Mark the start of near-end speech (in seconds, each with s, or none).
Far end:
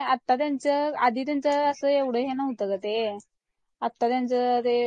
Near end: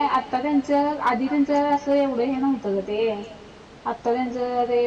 none